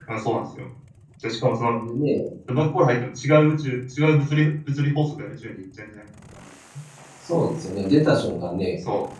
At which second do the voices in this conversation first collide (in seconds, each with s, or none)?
none